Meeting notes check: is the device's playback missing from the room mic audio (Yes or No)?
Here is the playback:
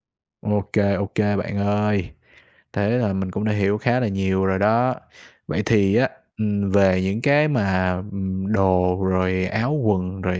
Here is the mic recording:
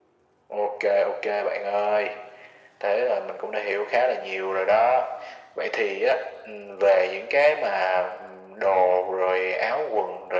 No